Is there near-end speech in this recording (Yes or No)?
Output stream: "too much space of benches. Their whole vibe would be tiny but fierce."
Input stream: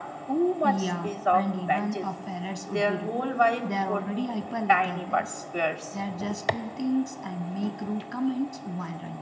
Yes